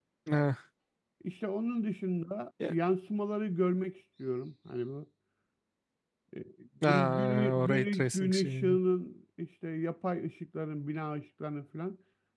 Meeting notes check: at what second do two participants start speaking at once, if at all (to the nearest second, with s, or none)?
7 s